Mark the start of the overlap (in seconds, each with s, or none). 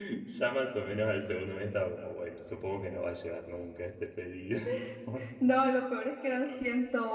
none